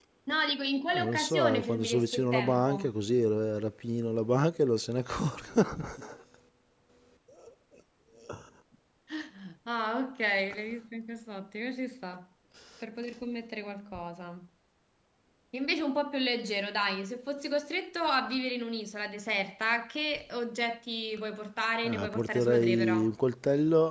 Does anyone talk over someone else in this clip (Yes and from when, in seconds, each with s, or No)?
Yes, from 0.9 s